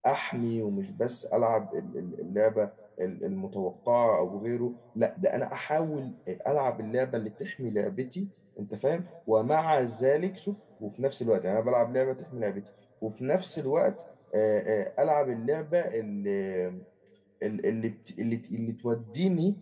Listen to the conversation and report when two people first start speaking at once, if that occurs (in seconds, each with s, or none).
none